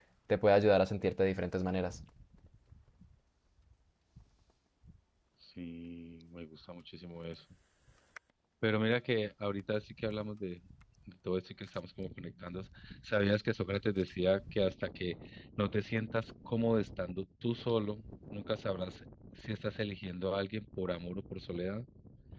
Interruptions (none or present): none